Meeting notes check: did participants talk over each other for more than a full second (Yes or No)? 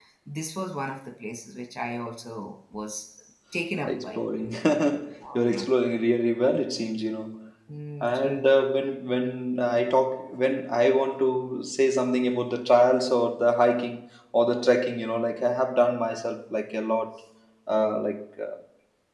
No